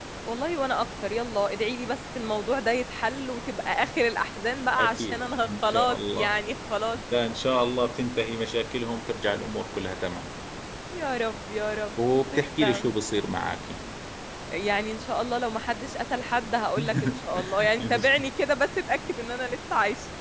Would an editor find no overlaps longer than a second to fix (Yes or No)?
No